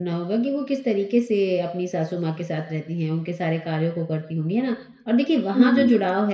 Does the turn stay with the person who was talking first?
Yes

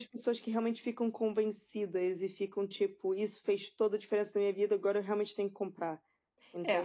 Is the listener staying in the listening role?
No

